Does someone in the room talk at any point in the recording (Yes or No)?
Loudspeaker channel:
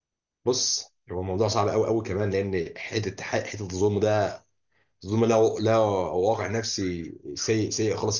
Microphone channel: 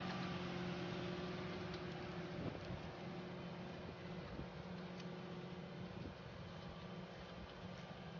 No